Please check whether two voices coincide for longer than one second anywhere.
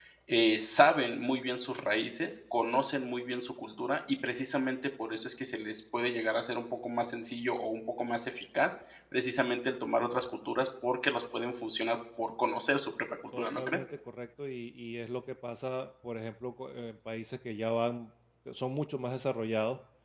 No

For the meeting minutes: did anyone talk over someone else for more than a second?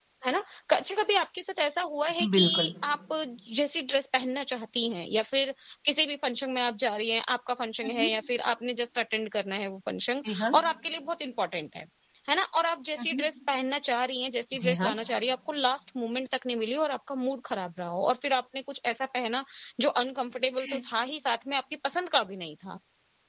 No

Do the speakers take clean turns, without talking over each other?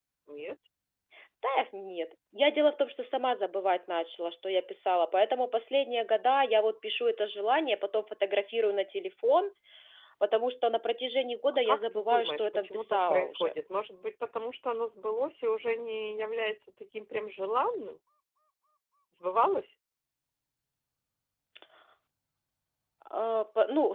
No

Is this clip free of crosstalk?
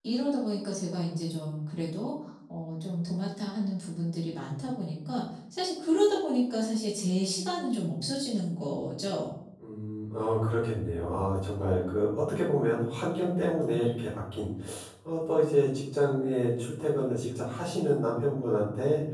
Yes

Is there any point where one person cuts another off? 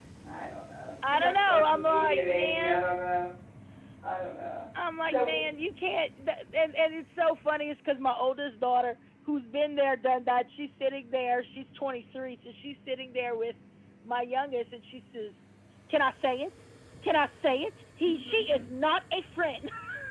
Yes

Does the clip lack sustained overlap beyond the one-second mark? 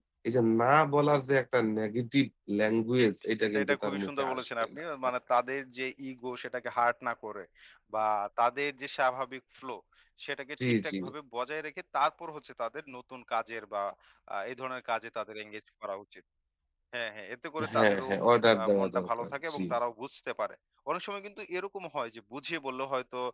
No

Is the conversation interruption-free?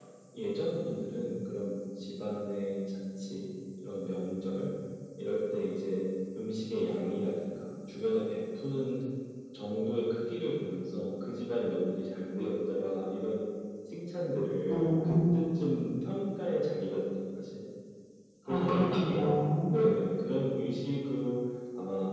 No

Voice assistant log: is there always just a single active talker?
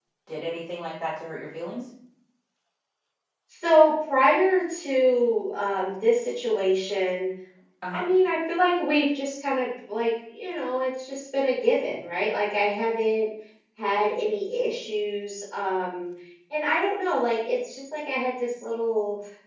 Yes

